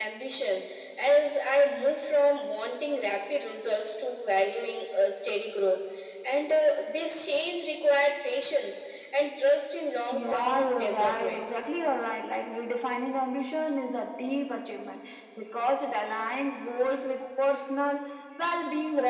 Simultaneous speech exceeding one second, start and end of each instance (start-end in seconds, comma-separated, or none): 10.1-11.4